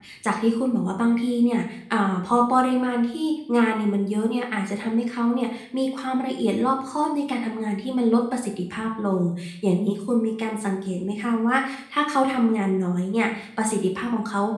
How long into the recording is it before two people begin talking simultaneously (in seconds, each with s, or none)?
none